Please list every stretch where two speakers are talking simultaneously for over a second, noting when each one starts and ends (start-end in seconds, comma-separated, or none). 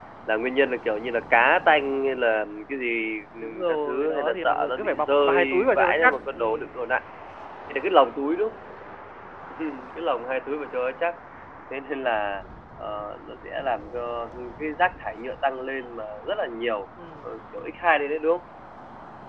3.4-6.8